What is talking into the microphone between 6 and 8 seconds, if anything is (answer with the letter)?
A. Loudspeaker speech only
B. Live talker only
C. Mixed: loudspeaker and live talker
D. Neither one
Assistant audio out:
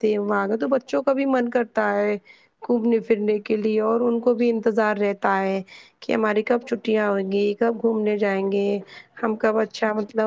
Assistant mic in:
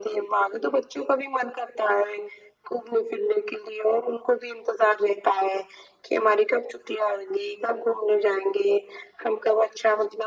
A